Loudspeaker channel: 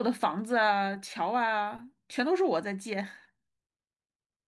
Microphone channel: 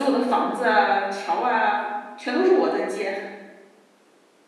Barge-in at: none

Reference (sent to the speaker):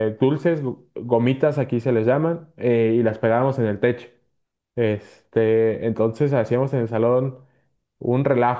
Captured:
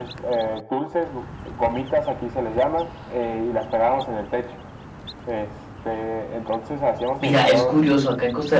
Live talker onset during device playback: 7.2 s

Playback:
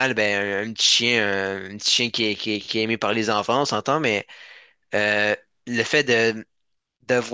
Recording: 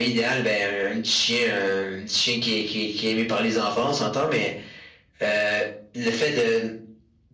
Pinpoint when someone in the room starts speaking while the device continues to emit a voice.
none

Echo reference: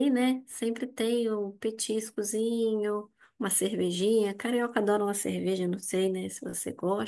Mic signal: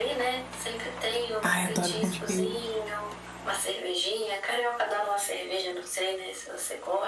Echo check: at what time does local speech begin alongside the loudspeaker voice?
1.4 s

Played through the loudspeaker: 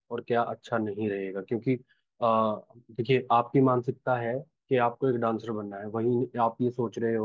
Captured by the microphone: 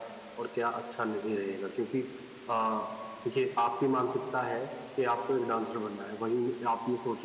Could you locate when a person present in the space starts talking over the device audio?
none

